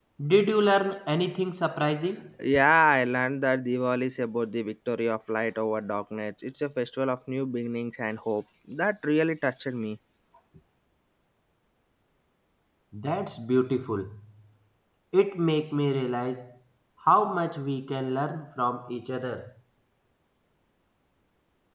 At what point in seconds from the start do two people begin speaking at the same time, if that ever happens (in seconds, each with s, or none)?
none